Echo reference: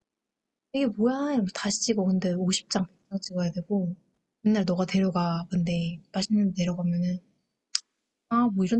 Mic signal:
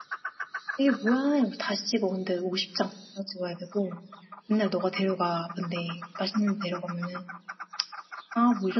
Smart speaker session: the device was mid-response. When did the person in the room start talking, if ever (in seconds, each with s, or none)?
none